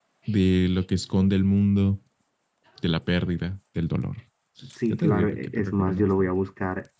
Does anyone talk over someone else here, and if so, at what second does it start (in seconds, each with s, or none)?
4.9 s